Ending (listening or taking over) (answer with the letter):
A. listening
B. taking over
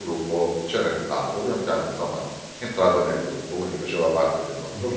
B